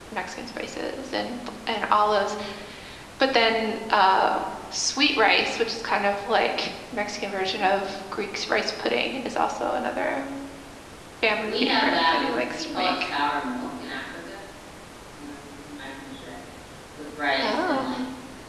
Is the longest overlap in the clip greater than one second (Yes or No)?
Yes